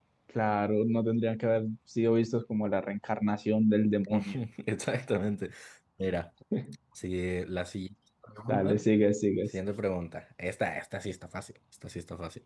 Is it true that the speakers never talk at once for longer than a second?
Yes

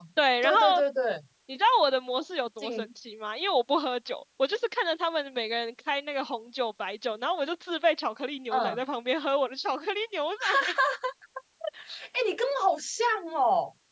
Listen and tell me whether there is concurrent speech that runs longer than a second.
No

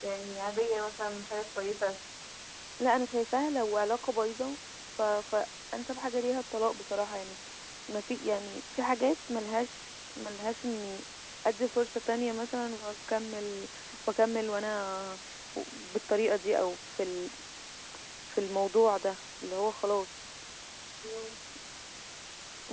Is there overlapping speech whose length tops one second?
No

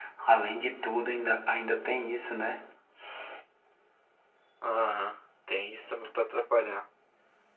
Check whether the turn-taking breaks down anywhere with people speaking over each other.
No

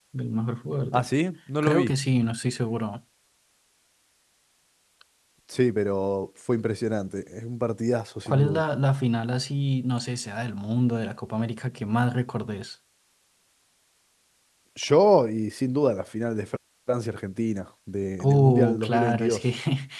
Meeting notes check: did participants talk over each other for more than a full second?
Yes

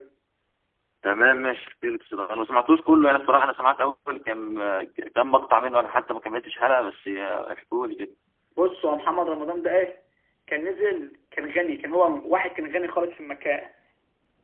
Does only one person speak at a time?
Yes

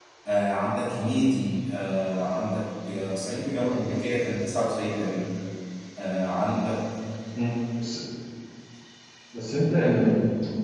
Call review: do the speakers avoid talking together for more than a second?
Yes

